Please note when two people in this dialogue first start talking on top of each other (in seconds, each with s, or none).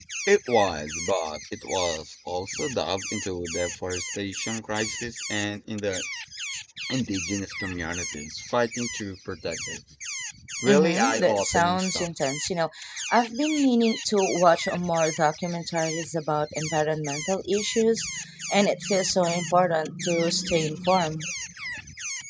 10.7 s